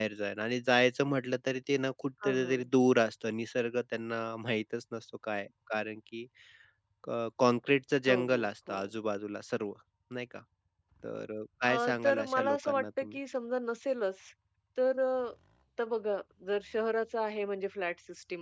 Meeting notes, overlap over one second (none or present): present